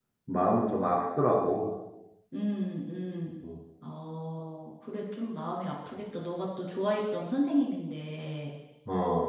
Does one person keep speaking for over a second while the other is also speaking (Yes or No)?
No